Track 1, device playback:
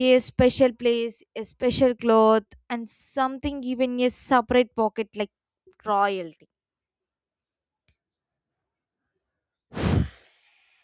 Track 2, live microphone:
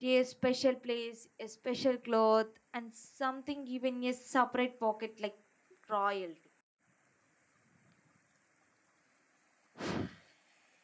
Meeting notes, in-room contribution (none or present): none